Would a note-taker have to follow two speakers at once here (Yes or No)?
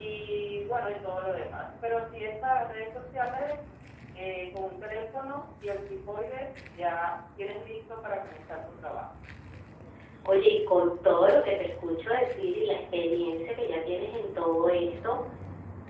No